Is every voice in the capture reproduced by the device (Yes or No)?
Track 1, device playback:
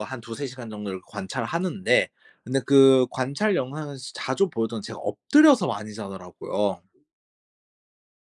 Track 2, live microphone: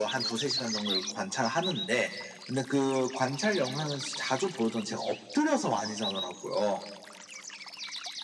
Yes